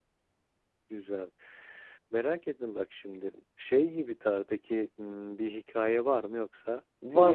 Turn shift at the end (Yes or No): Yes